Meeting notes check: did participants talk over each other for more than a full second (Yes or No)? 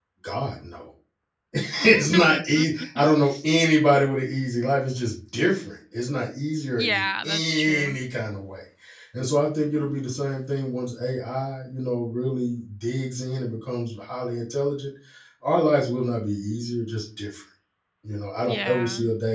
Yes